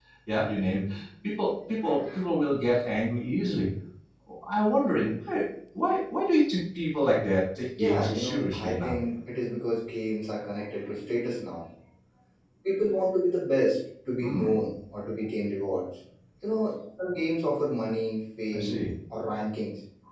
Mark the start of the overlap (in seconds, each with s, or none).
7.8 s